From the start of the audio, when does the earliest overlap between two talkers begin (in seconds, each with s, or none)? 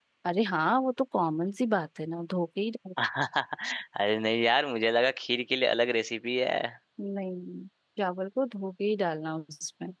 none